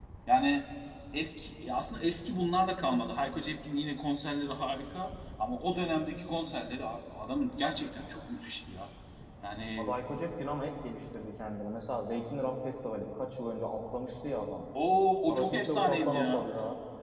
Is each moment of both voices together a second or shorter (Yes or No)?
No